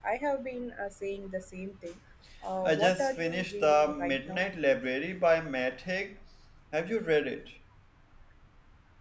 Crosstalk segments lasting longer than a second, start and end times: 2.6-4.4

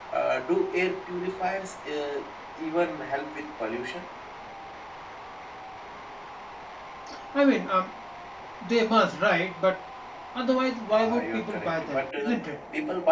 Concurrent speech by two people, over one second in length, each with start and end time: 10.9-12.3

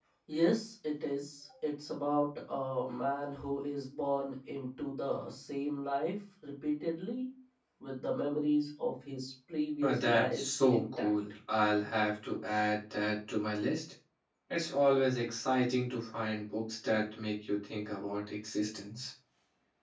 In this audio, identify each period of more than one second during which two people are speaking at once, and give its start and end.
9.8-11.1

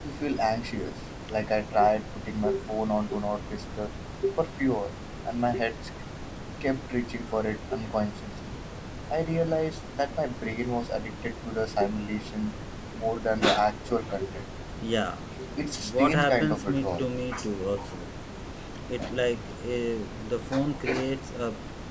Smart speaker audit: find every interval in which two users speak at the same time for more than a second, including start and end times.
15.8-17.0

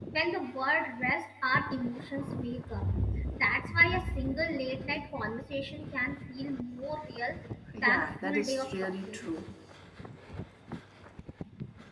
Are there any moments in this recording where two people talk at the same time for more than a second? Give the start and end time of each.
7.8-9.3

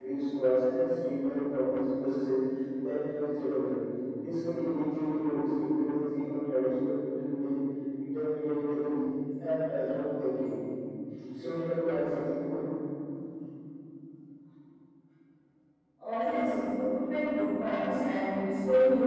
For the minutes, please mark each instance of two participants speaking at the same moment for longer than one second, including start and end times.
none

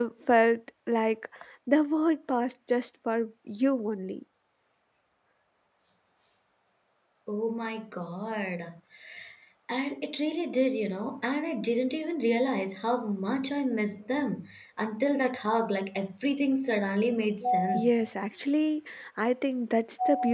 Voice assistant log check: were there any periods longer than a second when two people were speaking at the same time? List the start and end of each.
none

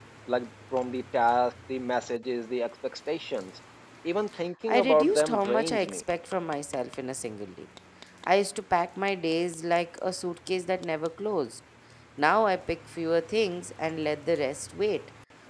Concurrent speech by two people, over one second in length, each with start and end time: 4.7-6.0

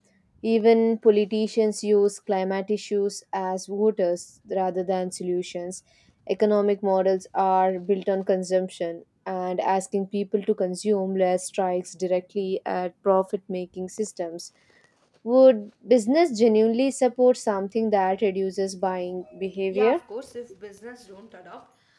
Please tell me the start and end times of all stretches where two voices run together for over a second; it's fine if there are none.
none

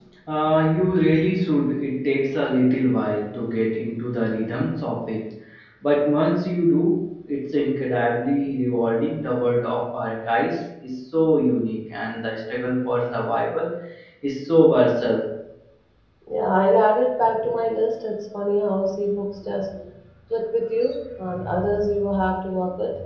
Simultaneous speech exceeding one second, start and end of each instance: none

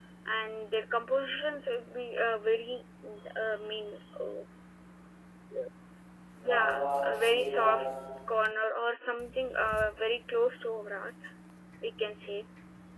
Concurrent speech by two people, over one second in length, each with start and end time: 6.4-7.8

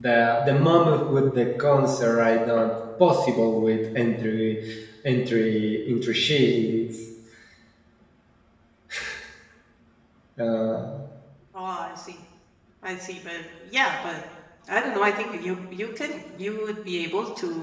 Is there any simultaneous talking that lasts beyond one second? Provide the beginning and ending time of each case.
none

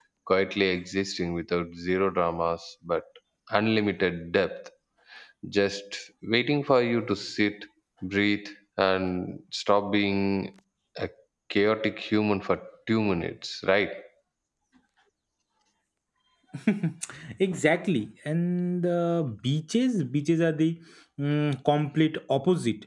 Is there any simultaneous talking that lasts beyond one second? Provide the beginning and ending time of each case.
none

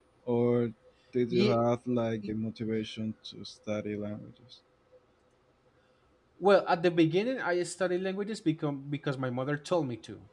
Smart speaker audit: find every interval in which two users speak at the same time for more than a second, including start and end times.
none

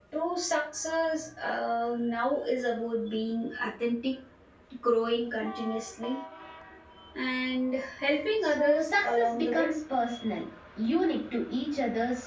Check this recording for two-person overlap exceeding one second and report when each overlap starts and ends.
8.5-9.7

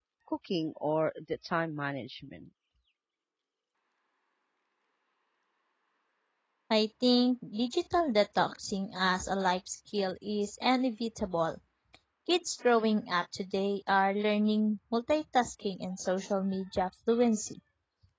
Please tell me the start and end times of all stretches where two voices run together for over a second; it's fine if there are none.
none

